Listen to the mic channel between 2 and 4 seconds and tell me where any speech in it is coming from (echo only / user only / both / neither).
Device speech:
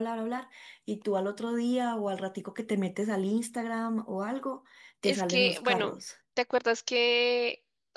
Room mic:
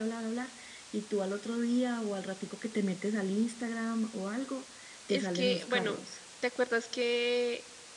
echo only